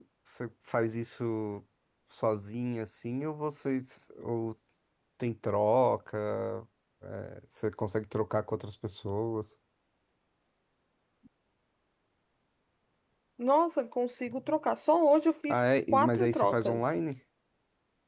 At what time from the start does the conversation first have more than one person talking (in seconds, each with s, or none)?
15.4 s